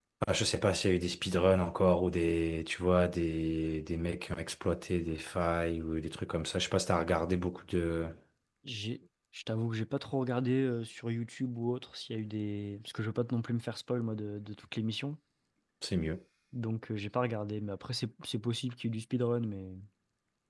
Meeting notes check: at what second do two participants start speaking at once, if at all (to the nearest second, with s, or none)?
none